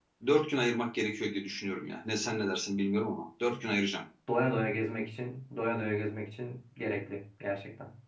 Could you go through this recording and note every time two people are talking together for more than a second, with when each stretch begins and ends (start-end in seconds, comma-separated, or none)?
none